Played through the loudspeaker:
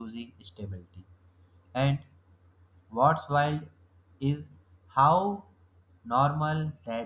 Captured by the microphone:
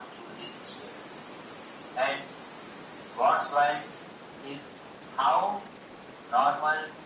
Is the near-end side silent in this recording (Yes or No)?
Yes